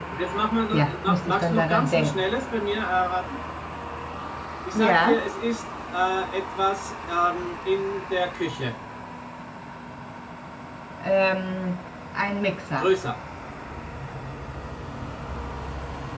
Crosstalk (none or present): present